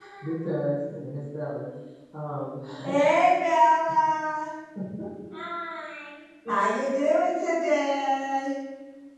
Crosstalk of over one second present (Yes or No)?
No